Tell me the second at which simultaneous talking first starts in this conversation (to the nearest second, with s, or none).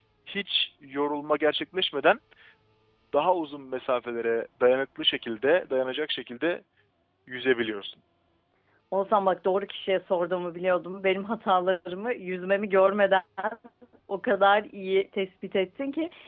none